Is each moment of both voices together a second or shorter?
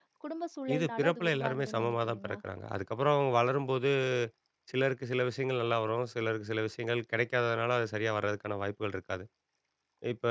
No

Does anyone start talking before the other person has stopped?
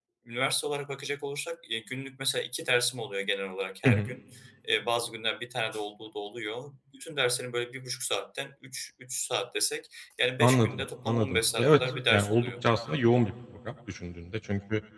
Yes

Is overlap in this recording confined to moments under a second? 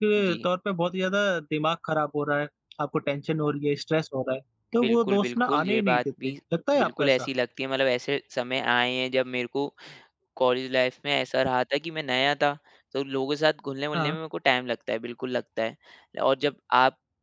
No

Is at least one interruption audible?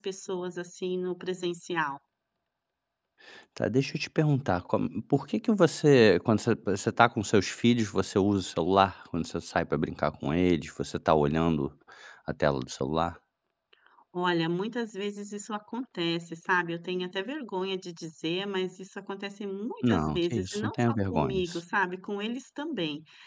Yes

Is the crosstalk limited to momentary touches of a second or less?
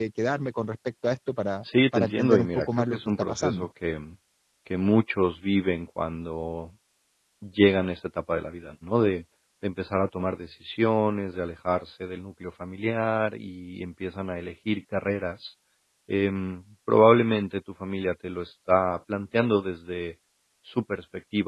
No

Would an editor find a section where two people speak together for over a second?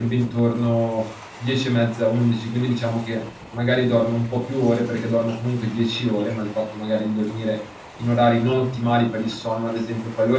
No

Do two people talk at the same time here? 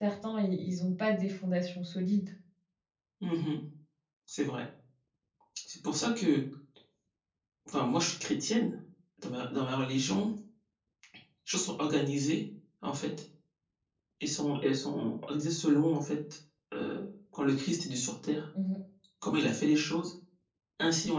No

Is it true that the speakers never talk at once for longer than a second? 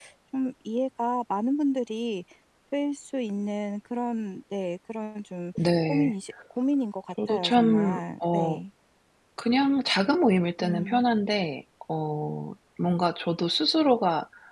No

